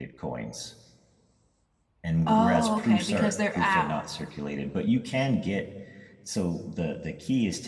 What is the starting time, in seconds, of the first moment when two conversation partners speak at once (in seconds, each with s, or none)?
2.3 s